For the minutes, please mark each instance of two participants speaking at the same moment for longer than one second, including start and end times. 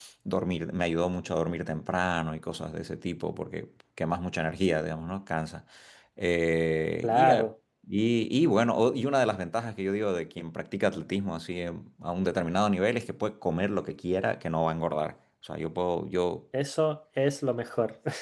none

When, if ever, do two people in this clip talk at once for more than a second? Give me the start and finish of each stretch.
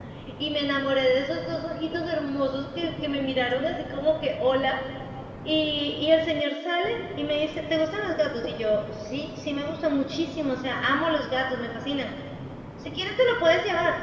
none

